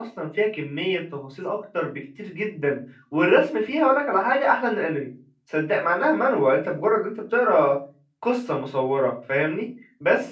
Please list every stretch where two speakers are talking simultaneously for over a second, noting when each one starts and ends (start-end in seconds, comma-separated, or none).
none